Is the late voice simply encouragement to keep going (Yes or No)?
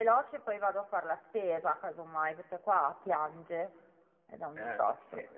No